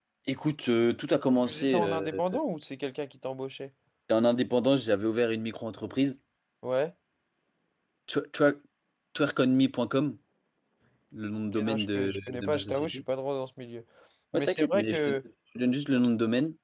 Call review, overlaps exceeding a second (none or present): present